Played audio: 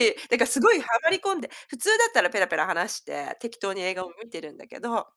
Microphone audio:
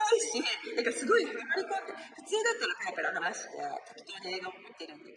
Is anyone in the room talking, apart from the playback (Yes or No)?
No